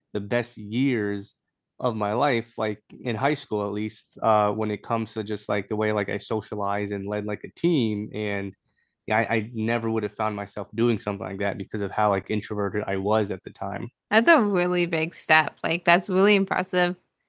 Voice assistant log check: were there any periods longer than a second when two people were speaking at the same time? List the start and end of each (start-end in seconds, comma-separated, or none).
none